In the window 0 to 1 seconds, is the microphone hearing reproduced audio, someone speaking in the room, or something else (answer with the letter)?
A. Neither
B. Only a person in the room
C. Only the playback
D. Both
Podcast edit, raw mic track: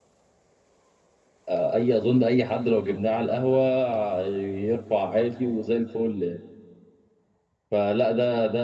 A